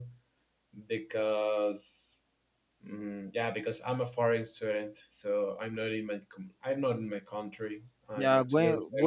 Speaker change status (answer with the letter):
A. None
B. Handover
B